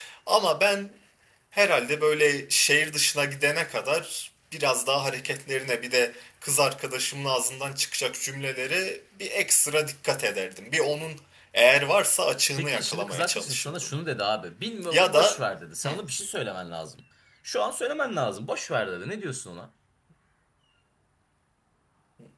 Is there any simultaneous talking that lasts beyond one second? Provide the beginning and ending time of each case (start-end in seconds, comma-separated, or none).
12.6-13.9